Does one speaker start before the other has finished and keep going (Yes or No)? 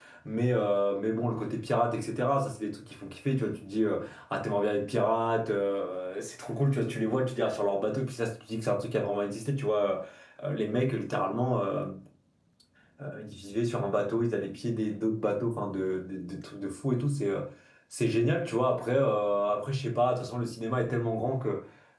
No